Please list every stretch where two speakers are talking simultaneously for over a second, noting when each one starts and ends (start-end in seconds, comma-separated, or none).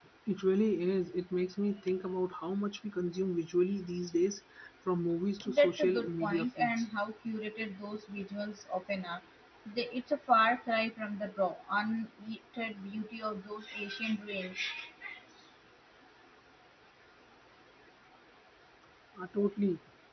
5.5-6.8